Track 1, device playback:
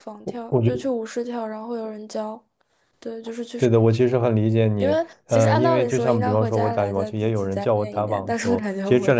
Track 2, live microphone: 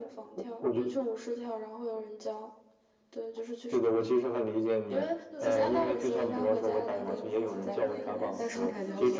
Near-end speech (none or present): present